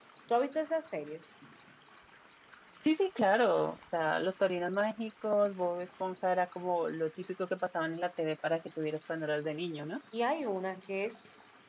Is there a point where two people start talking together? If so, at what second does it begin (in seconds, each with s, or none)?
none